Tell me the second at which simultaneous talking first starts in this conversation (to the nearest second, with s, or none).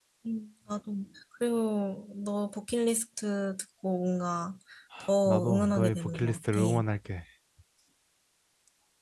5 s